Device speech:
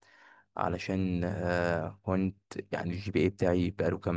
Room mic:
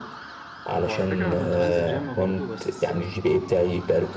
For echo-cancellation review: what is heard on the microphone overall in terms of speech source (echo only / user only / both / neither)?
both